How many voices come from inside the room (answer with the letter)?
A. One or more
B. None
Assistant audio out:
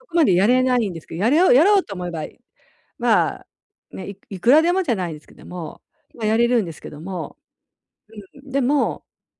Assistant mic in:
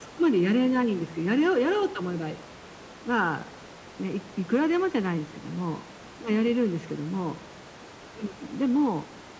B